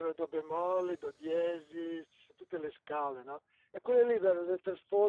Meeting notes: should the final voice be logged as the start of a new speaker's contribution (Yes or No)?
No